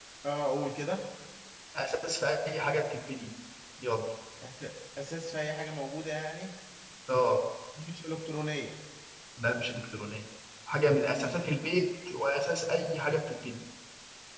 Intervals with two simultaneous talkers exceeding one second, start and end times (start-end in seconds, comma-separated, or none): none